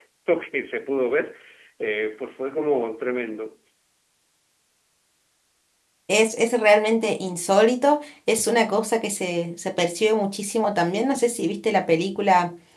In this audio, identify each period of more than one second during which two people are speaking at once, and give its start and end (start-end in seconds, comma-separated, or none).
none